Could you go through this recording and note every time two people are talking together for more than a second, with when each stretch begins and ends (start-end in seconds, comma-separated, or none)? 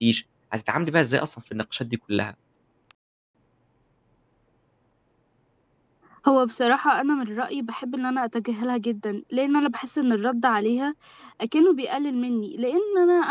none